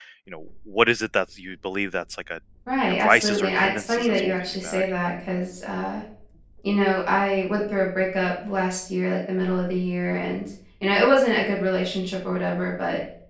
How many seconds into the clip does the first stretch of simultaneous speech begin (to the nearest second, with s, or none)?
3 s